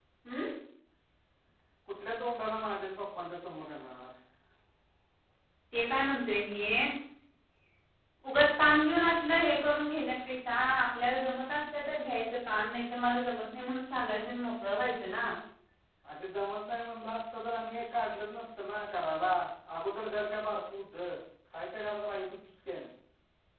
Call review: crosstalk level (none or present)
none